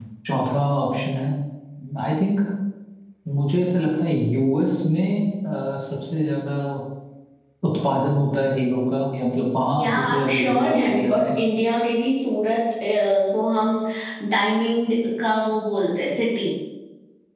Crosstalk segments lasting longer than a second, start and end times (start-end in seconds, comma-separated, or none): 9.8-11.3